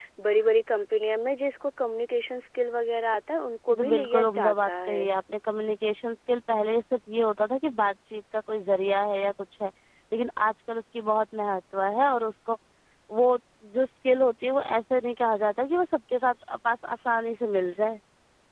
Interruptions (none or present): present